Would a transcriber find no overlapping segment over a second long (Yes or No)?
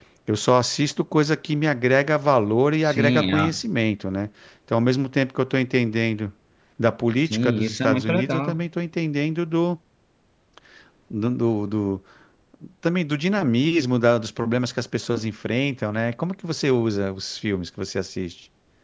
No